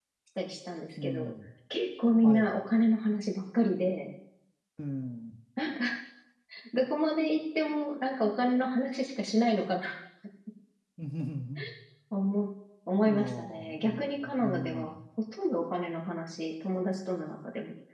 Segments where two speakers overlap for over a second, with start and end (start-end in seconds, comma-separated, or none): 13.1-15.0